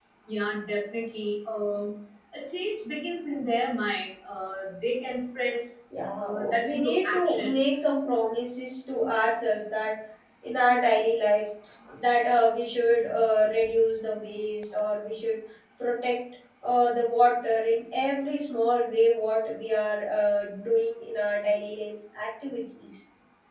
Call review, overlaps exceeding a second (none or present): present